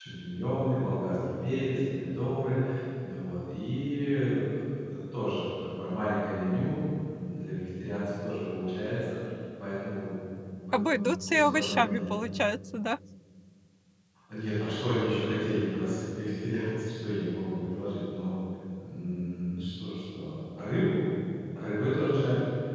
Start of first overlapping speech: 10.7 s

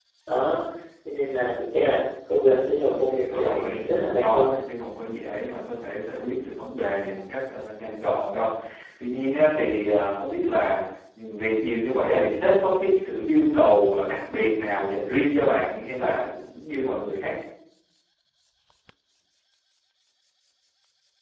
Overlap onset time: 2.9 s

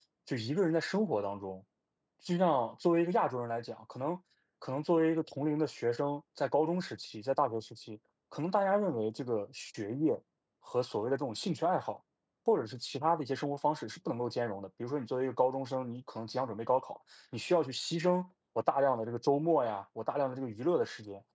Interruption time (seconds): none

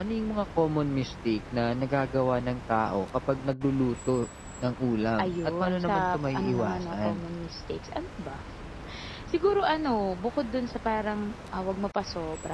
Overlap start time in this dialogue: 5.2 s

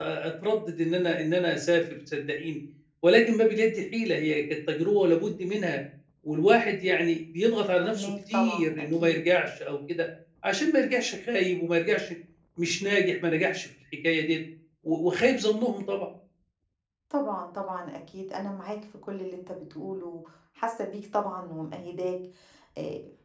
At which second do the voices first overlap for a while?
7.8 s

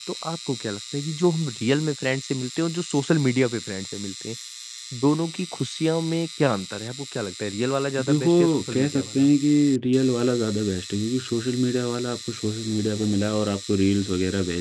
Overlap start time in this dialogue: 8.0 s

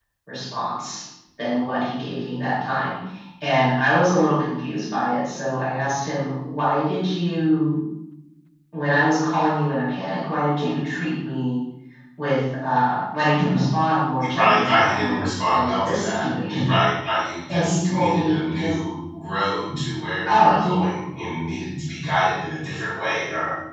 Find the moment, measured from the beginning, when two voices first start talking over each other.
14.2 s

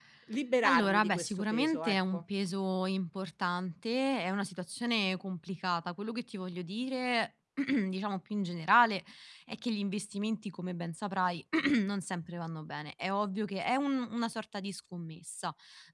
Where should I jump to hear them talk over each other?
0.6 s

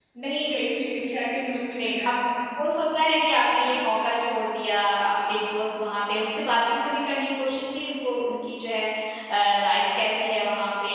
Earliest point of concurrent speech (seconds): none

